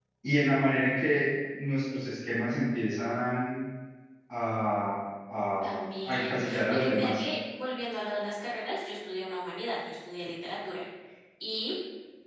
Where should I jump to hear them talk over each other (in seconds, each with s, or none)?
5.6 s